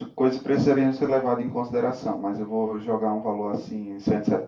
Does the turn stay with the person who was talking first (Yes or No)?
No